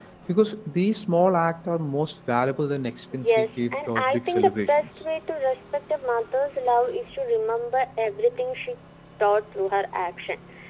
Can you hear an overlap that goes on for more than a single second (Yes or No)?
Yes